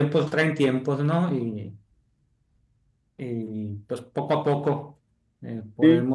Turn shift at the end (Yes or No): No